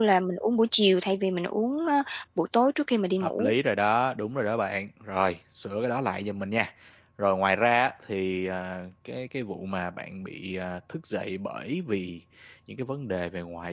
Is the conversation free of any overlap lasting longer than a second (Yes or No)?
Yes